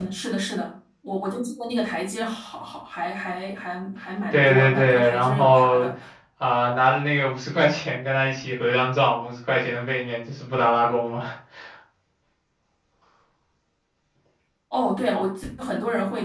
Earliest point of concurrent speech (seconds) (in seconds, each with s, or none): 4.3 s